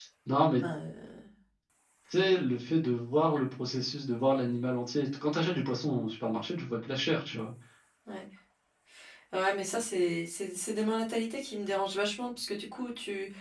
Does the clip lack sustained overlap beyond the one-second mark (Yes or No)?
Yes